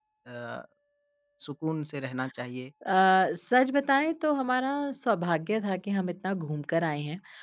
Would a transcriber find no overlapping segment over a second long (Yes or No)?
Yes